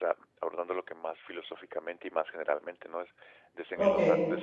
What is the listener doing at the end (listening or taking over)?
listening